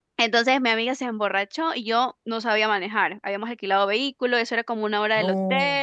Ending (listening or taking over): listening